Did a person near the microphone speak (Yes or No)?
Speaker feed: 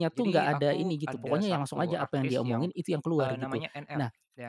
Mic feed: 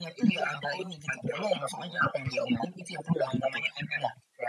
No